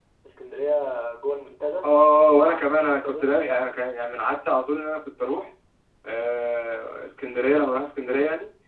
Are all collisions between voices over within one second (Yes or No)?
No